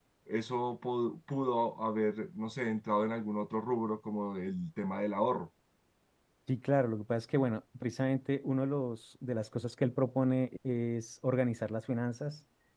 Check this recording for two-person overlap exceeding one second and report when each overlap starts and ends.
none

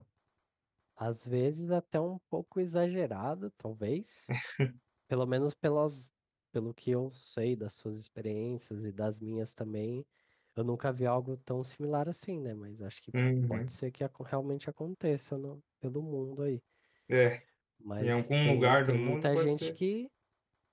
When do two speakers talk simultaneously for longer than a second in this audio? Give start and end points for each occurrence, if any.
18.0-19.7

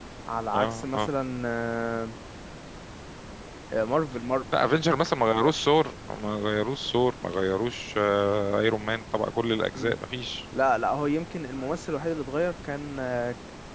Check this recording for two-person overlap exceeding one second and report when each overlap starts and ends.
none

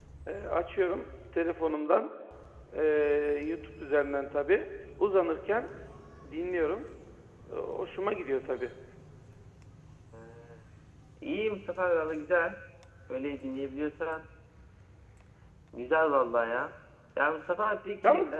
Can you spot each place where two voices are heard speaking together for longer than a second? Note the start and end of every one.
none

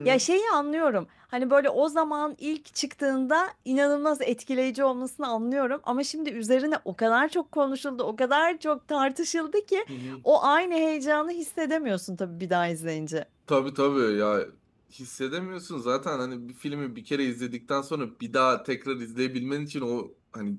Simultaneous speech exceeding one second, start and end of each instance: none

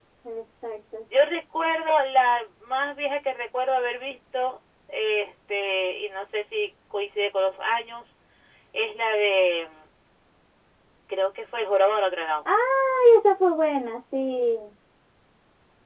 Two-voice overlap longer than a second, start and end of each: none

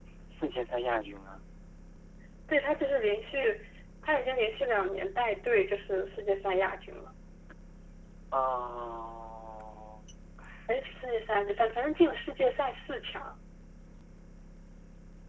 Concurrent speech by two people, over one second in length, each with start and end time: none

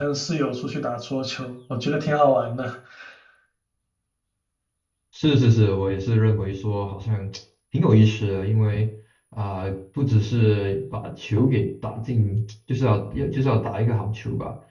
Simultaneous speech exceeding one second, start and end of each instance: none

